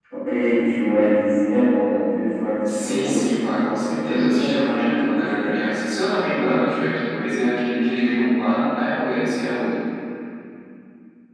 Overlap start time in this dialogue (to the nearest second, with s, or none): 3 s